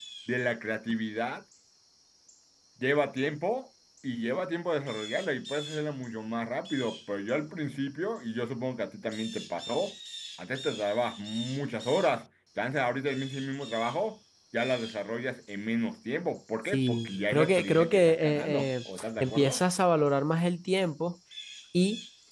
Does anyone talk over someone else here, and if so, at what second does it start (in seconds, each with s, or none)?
16.7 s